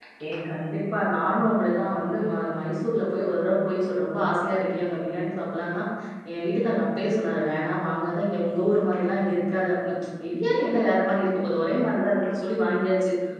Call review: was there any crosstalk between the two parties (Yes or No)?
No